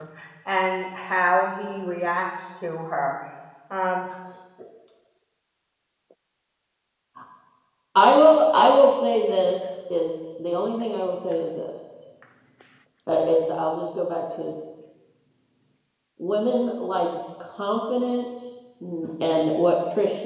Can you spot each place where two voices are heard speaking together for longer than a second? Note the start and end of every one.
none

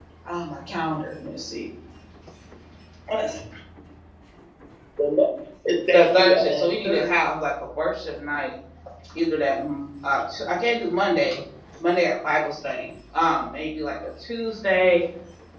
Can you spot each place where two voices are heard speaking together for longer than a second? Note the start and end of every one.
5.9-7.1

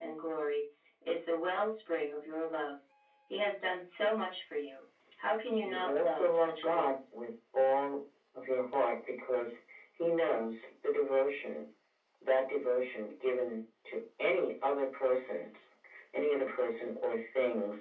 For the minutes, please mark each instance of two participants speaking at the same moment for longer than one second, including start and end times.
5.6-6.9

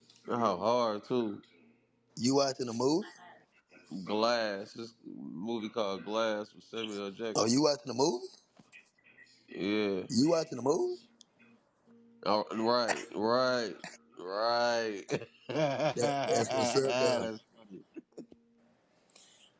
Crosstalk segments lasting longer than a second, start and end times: 16.0-17.3

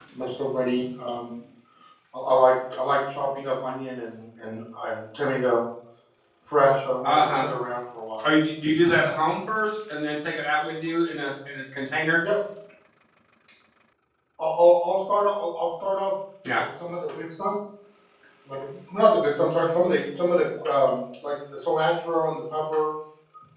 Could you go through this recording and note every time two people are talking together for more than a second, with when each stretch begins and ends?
none

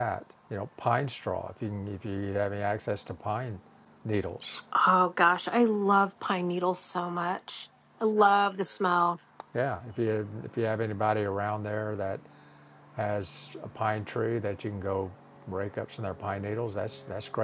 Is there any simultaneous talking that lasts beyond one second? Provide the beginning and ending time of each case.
none

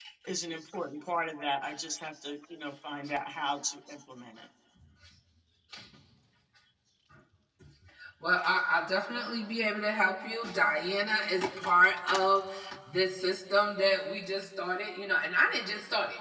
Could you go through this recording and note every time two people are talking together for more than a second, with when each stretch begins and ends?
none

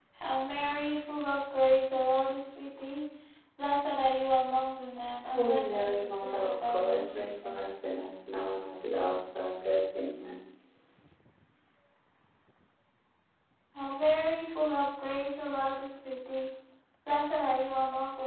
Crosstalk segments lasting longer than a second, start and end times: 5.3-7.7

